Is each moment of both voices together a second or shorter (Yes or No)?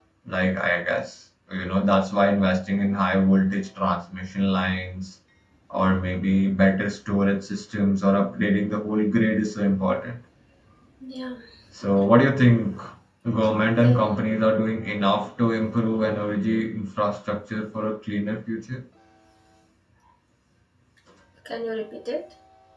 Yes